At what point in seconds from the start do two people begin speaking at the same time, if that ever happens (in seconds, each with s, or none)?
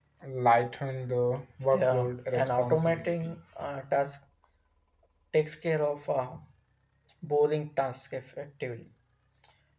1.7 s